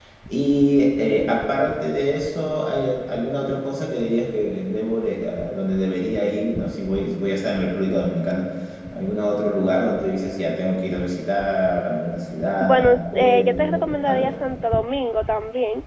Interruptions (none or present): present